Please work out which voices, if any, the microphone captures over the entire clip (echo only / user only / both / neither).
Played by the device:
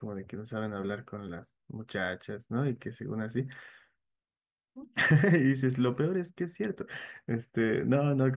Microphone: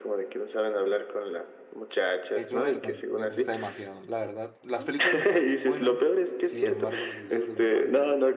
both